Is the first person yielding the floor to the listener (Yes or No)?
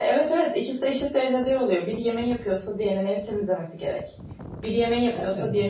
No